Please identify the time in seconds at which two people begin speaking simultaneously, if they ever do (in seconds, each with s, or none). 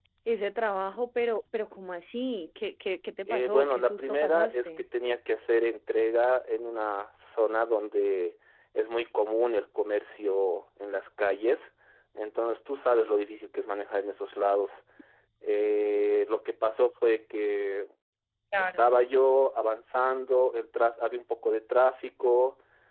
3.3 s